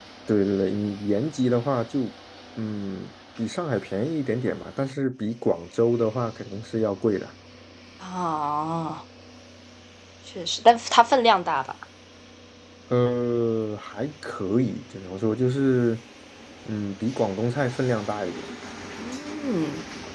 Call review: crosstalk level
none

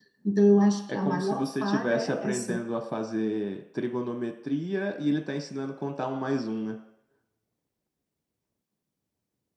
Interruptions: present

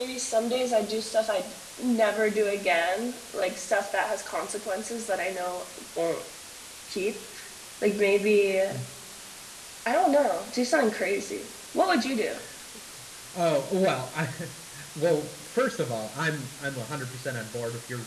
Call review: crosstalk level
none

